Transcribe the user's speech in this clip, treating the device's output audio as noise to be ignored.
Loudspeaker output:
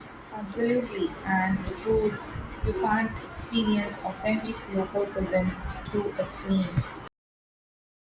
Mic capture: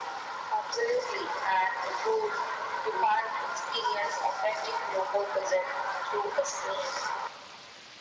none

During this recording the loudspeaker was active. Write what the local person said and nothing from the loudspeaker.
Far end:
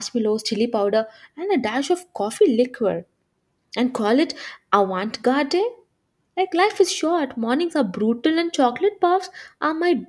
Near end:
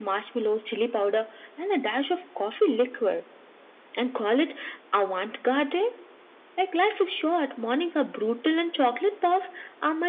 none

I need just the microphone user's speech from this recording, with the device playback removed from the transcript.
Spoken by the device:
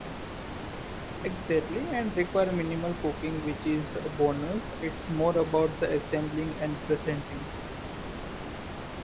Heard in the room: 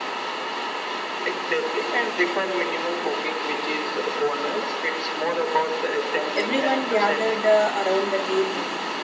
Everyone gathered uh, around the table.

